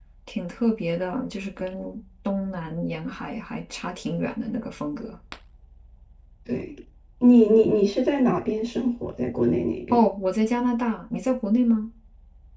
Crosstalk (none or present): none